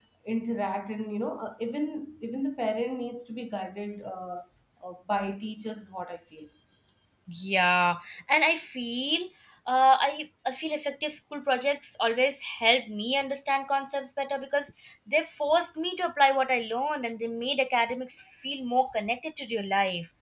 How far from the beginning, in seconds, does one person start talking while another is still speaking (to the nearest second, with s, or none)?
none